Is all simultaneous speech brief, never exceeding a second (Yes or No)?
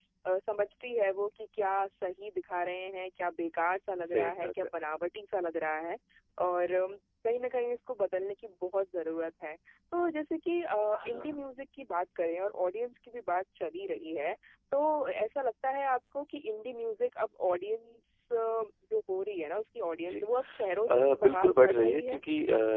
No